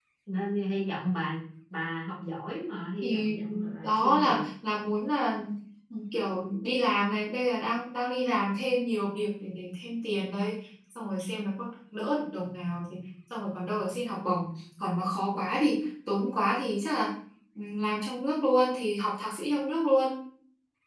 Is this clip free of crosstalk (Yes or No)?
No